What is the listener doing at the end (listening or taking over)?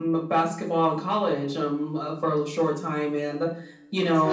listening